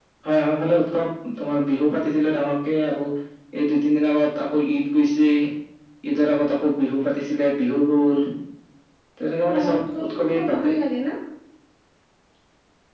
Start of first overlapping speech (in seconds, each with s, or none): 9.4 s